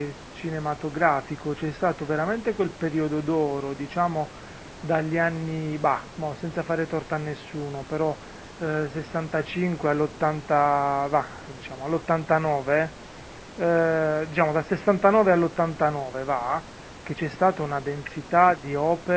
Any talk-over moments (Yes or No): No